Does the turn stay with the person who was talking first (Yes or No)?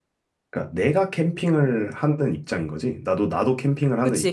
No